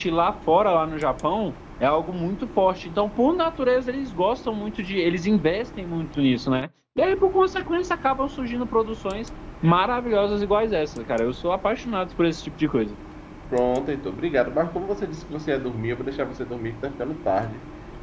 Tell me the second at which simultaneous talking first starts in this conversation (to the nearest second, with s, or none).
none